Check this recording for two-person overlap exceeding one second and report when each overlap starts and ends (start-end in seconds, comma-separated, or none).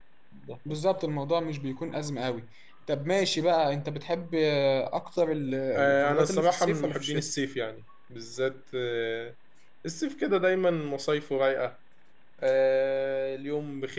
5.8-7.3